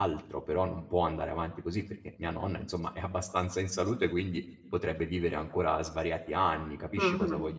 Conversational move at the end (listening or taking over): taking over